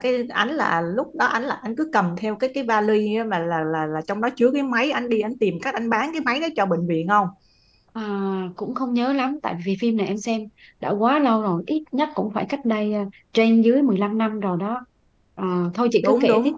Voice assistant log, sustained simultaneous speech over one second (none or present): none